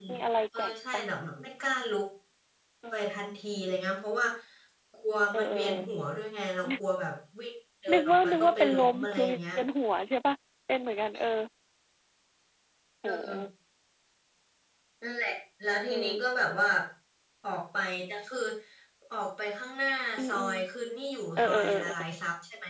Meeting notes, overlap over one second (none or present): present